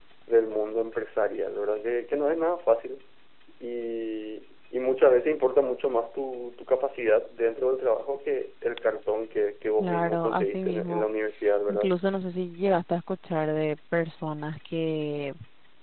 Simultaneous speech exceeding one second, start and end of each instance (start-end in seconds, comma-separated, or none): 9.8-11.0